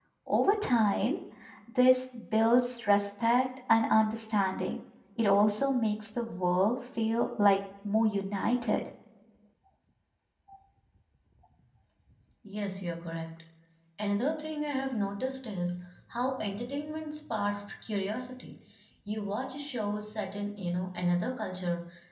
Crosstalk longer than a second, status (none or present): none